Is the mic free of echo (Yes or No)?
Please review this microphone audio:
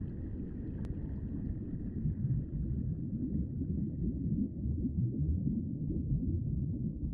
Yes